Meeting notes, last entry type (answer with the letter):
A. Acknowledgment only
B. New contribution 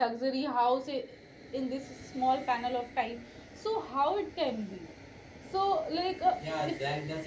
B